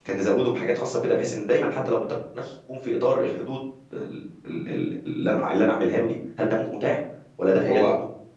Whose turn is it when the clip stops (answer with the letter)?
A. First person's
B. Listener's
B